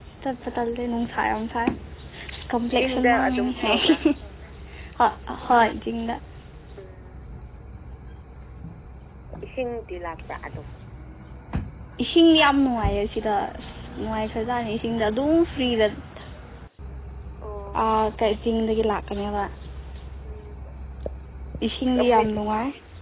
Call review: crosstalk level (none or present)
present